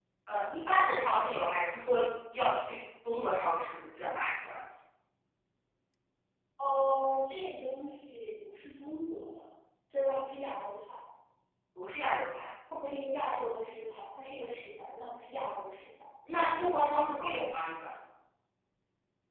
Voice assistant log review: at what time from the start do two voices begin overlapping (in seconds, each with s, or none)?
none